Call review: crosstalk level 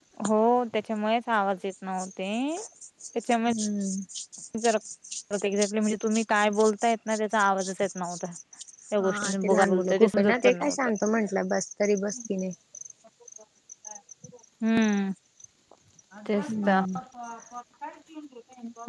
present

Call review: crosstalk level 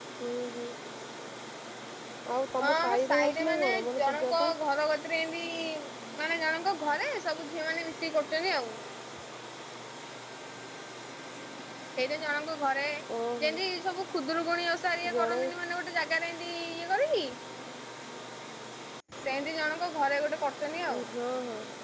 present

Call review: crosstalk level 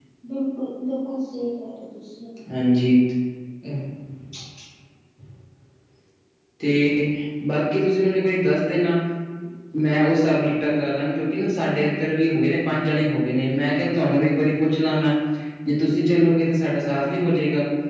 none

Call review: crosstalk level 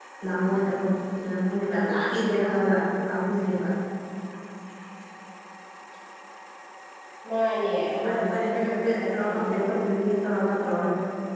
present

